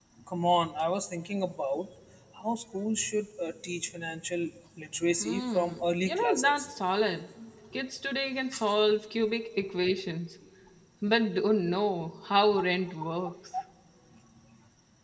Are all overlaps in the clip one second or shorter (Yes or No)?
No